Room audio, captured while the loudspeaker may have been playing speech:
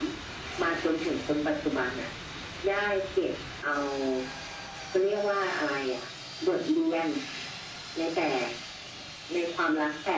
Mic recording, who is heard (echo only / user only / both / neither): echo only